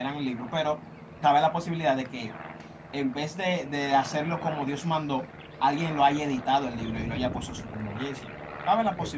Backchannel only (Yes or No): Yes